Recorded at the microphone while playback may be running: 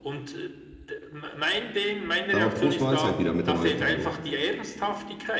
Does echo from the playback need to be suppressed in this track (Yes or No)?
Yes